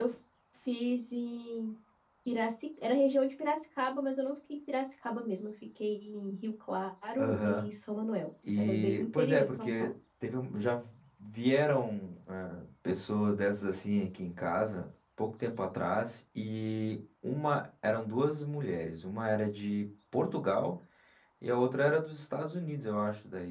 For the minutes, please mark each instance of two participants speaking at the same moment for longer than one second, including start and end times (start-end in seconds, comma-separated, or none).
8.6-9.9